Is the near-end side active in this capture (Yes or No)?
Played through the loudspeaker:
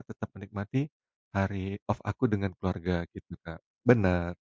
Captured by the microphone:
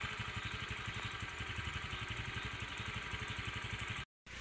No